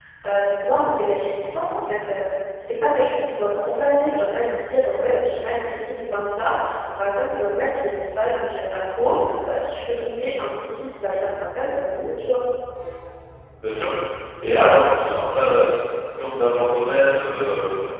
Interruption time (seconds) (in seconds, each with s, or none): none